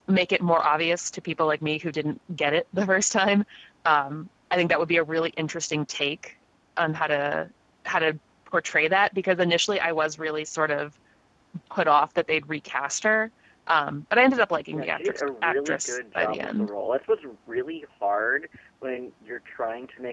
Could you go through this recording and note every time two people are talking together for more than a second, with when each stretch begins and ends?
14.7-16.7

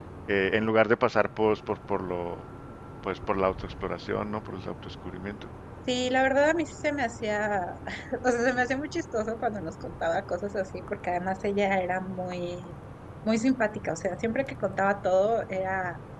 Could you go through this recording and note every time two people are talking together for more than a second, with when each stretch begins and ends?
none

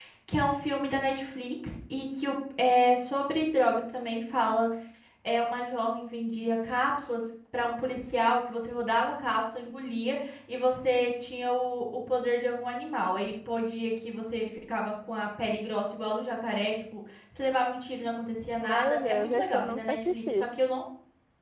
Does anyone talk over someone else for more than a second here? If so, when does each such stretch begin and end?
18.6-20.5

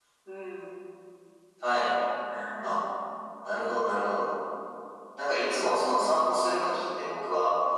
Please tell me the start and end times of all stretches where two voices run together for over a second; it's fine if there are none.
none

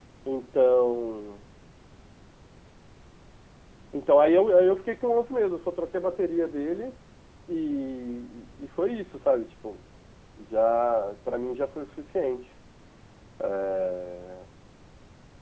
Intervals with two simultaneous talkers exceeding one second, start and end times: none

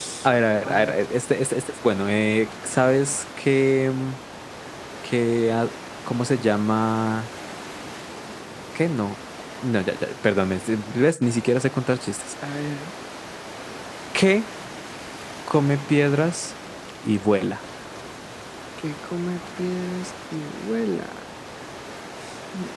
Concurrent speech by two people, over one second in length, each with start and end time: none

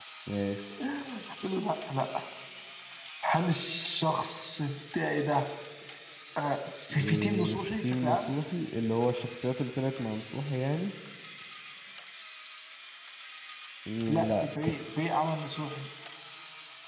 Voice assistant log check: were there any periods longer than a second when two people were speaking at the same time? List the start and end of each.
6.9-8.3

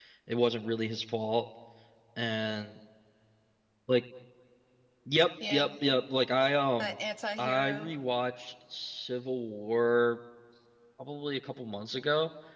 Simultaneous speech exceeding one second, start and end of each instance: none

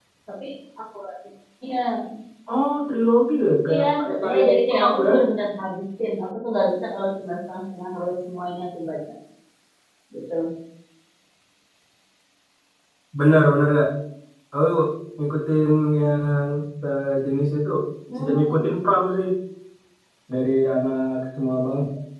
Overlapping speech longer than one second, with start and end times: 3.7-5.1

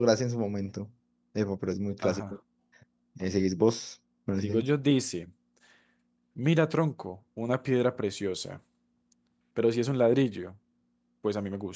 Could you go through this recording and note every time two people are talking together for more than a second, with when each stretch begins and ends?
none

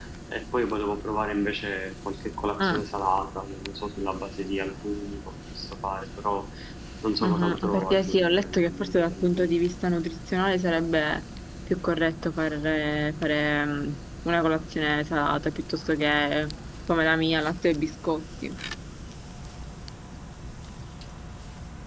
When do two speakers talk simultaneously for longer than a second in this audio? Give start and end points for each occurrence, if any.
7.2-9.5

